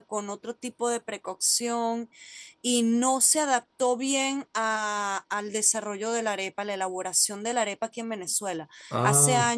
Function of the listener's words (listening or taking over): listening